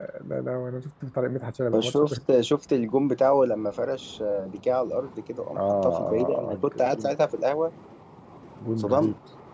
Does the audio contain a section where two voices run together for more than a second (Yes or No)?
Yes